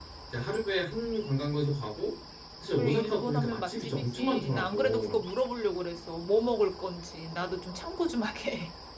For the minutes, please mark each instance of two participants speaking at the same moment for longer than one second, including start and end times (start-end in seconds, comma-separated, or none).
2.7-5.2